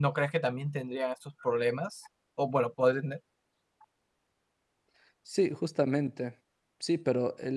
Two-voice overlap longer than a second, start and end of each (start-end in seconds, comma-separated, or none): none